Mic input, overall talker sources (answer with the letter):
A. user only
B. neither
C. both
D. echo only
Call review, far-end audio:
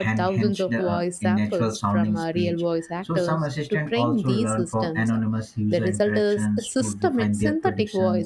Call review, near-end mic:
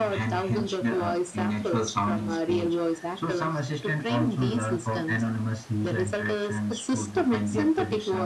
D